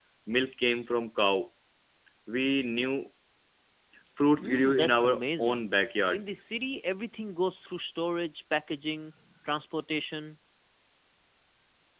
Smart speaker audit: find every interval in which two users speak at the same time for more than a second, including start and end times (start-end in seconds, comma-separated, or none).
4.4-5.6